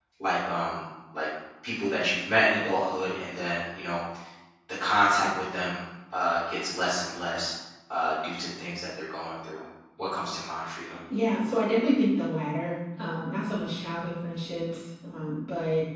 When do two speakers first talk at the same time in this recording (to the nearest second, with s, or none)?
none